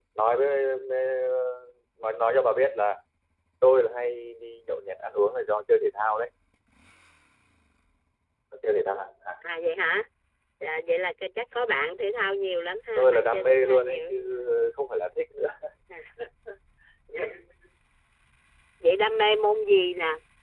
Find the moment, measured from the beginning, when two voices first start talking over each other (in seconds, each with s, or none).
12.9 s